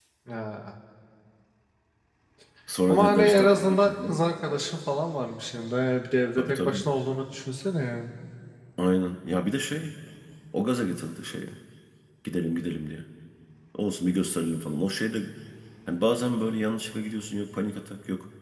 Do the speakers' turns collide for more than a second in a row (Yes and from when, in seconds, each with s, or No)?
Yes, from 2.9 s